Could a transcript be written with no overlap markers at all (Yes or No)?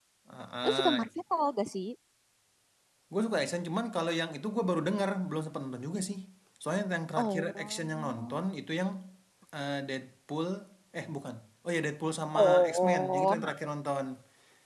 No